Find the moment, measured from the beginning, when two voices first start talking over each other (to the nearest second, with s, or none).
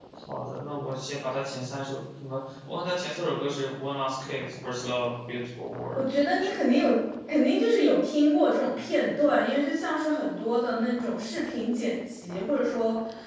none